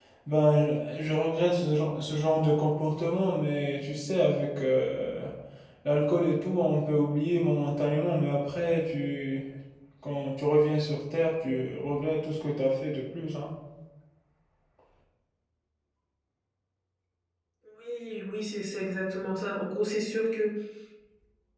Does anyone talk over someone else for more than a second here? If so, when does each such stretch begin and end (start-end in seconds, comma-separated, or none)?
none